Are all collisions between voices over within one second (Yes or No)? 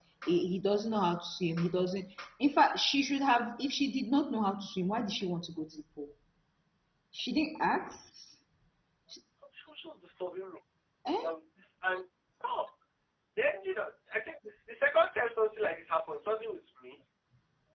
Yes